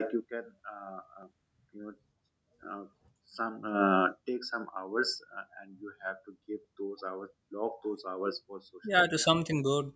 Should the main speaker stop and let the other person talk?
Yes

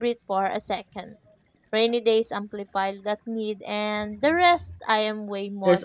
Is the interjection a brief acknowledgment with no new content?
No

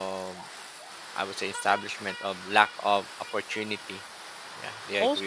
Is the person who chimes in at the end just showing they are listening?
No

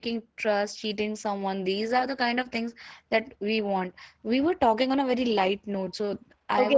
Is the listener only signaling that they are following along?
No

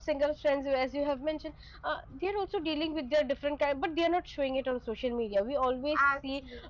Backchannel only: Yes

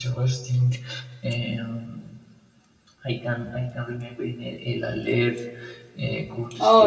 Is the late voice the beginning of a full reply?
No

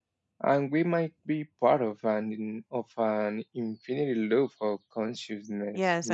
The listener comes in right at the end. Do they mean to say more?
Yes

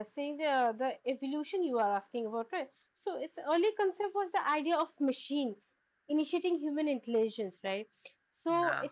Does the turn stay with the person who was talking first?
Yes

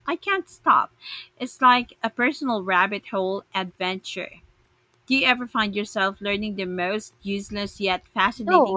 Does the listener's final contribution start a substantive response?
Yes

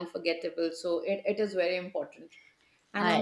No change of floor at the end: Yes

